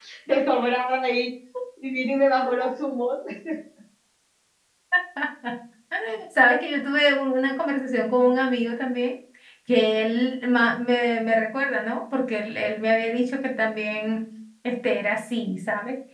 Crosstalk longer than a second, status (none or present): none